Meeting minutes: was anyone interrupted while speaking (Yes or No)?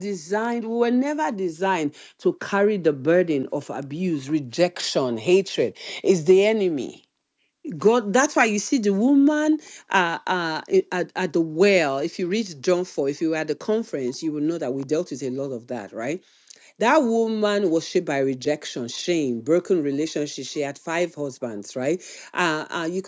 No